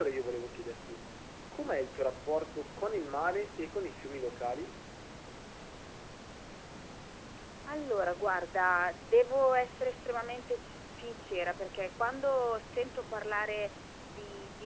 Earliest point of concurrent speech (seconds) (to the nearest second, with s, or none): none